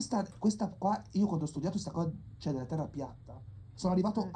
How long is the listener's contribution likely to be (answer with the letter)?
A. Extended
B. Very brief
B